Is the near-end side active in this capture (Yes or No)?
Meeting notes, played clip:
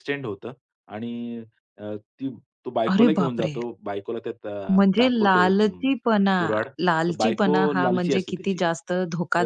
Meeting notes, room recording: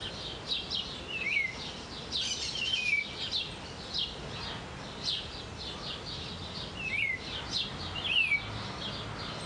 No